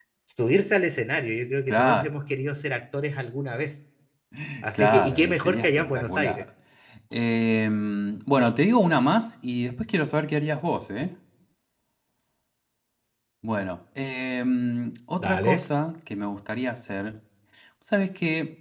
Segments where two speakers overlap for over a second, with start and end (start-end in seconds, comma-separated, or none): 4.7-6.4